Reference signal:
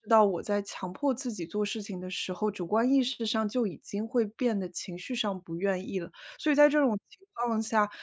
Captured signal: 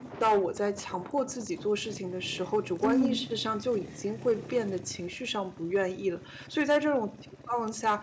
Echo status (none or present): present